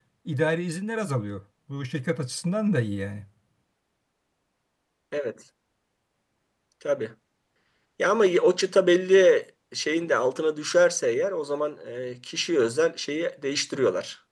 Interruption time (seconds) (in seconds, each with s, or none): none